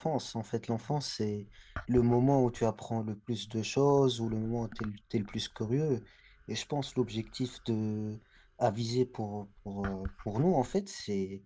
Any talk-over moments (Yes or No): No